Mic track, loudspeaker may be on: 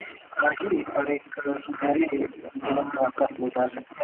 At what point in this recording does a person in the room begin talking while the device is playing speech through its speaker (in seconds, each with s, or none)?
2.6 s